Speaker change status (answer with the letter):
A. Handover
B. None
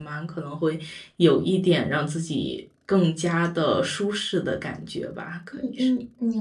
A